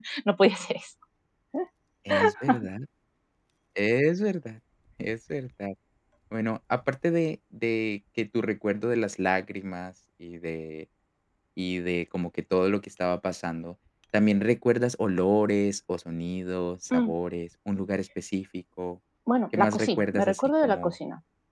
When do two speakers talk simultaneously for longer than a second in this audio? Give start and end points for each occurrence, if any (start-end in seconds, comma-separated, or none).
19.5-20.9